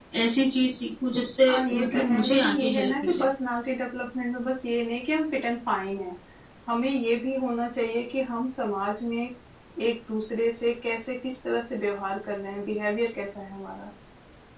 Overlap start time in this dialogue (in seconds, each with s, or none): 1.4 s